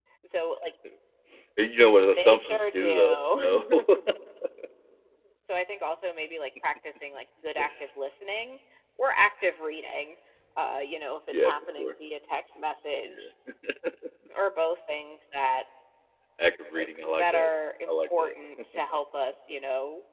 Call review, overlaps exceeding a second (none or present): present